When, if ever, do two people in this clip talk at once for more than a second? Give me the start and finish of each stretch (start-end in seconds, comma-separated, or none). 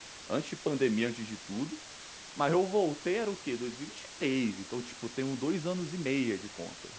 none